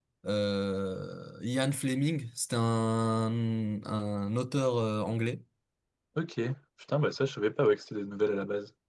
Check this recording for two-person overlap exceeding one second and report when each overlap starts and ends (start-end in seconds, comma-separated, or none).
none